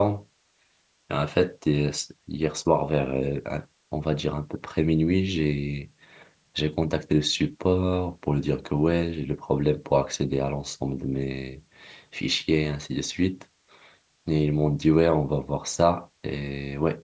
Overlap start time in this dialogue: none

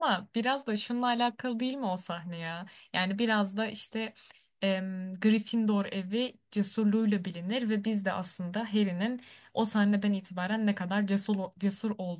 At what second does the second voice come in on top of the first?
none

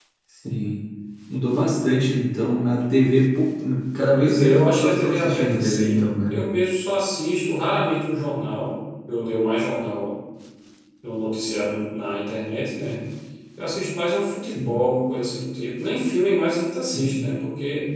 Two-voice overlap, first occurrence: 4.1 s

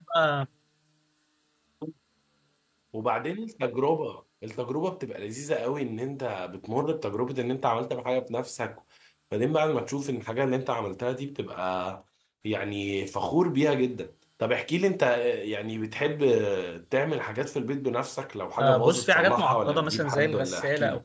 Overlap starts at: 18.6 s

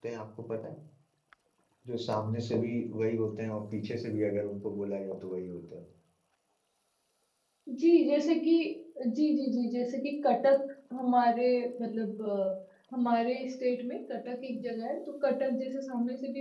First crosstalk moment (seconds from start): none

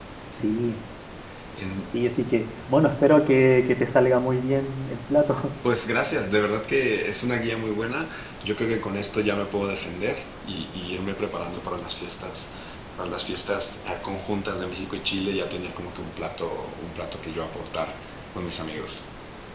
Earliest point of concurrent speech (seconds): none

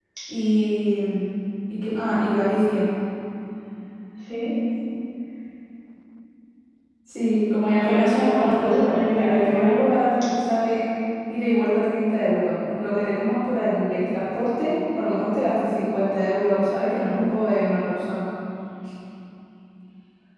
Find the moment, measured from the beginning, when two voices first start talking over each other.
7.8 s

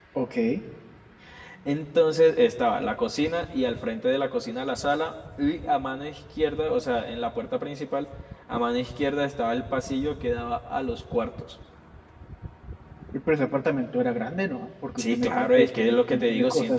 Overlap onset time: 15.0 s

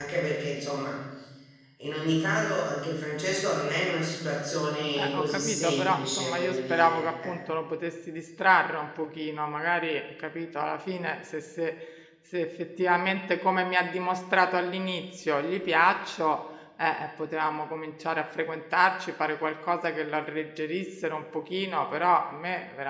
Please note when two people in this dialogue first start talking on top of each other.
5.0 s

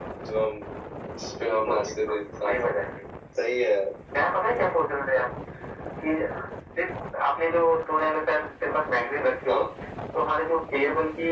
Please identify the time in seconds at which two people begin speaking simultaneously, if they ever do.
1.4 s

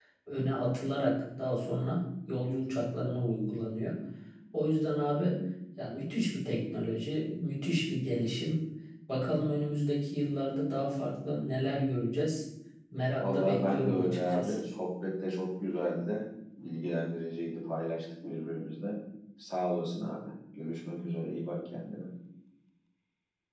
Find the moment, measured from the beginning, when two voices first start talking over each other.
13.2 s

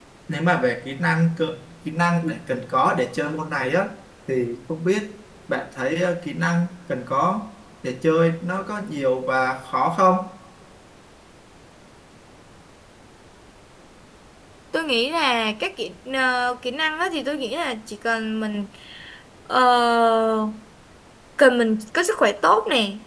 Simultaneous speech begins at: none

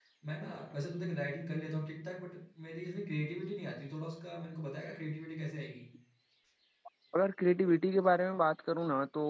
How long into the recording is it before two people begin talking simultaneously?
none

